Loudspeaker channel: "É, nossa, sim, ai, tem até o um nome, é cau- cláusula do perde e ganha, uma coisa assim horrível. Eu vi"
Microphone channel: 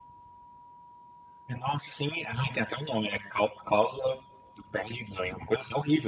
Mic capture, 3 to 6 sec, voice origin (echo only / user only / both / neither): echo only